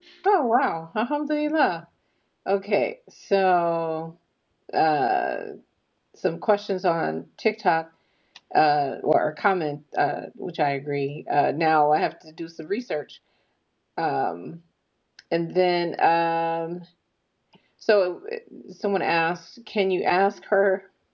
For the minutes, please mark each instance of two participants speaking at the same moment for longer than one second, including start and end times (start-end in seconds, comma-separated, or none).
none